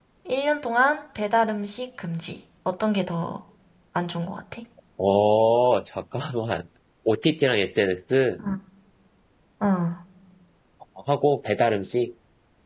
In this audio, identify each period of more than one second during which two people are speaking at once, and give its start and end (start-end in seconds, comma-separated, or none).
none